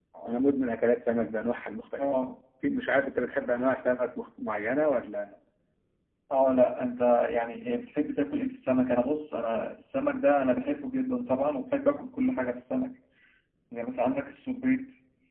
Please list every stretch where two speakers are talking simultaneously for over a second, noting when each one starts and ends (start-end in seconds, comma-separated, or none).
none